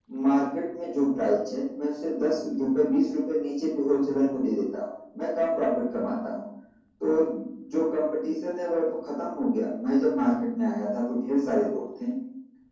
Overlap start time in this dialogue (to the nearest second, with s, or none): none